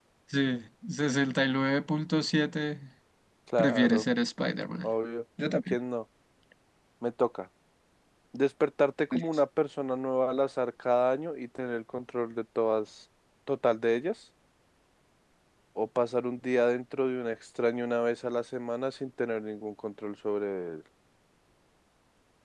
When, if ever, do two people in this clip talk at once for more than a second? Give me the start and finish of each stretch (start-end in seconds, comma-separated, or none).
none